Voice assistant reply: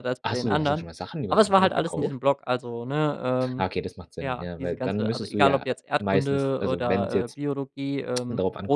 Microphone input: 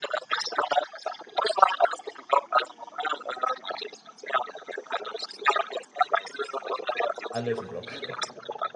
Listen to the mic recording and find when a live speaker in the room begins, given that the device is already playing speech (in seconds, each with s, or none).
7.3 s